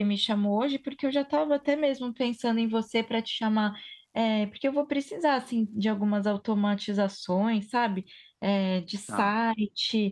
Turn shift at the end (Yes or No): No